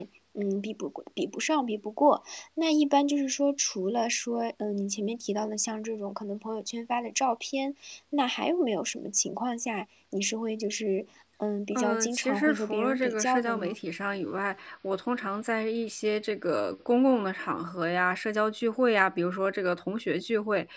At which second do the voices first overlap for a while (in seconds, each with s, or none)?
11.8 s